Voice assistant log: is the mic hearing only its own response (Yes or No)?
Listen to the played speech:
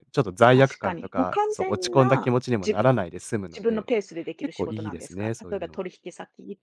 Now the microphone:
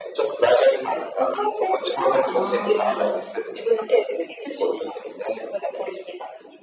No